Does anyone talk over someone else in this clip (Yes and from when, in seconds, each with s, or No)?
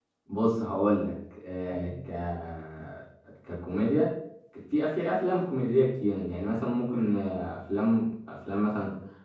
No